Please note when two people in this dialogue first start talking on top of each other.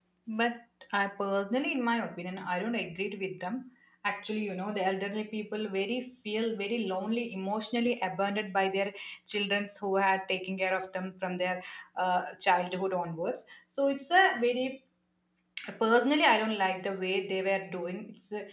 none

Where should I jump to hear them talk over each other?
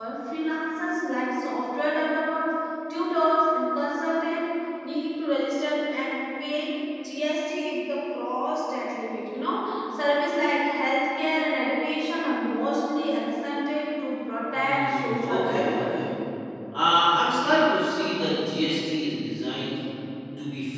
14.5 s

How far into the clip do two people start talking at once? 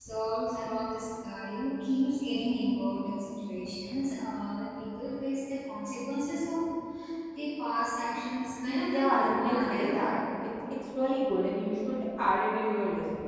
8.7 s

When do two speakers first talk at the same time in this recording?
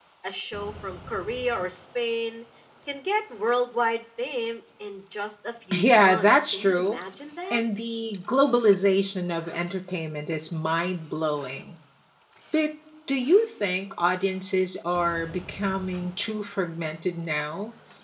5.7 s

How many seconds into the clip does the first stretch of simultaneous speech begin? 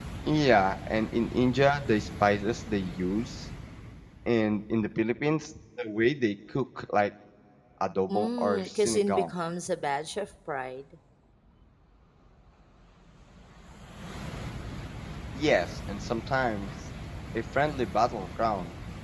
8.1 s

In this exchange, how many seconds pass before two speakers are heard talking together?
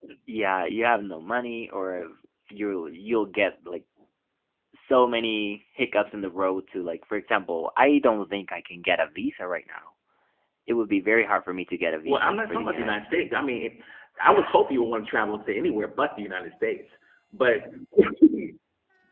12.1 s

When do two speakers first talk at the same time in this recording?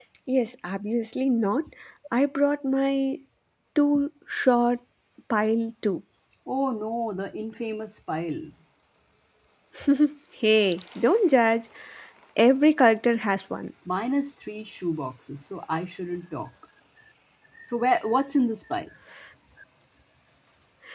none

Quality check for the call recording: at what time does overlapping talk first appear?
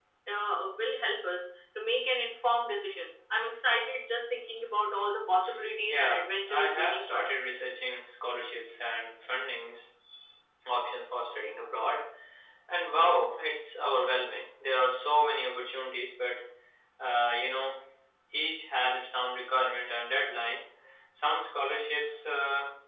5.9 s

